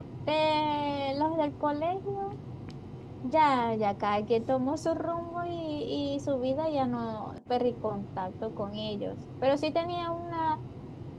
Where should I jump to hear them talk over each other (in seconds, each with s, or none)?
none